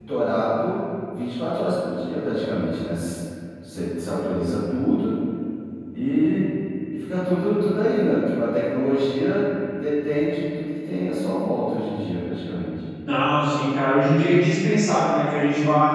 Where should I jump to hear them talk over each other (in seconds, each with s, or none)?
none